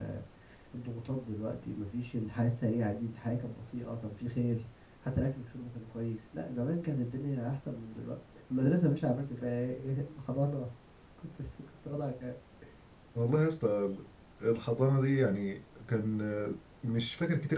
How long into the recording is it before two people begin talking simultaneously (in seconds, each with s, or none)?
none